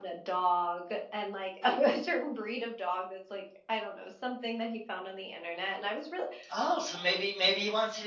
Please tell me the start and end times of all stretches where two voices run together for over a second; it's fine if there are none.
none

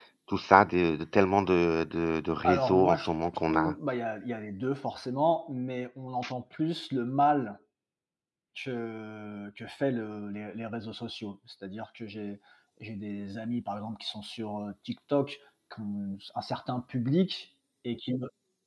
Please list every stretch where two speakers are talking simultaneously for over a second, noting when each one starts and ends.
2.4-3.8

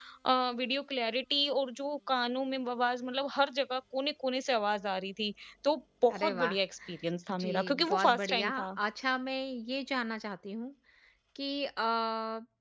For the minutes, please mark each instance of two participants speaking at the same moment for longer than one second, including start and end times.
7.3-8.5

